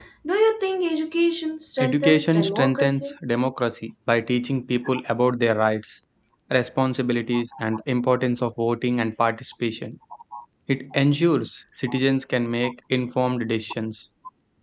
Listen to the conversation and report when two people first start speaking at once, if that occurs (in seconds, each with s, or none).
1.8 s